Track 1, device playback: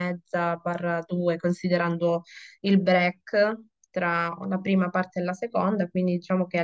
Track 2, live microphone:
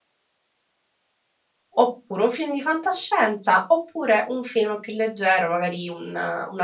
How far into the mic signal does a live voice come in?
1.7 s

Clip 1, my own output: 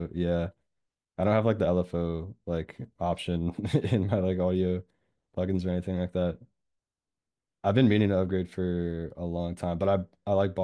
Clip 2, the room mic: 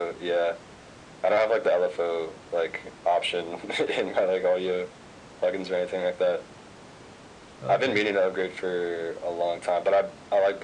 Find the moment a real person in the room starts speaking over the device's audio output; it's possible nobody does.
7.6 s

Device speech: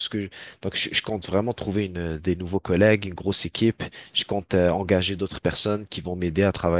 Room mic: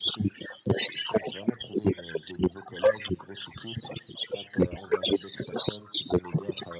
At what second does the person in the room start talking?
none

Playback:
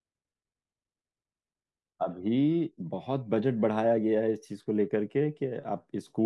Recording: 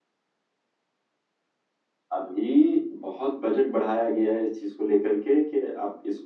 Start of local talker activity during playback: none

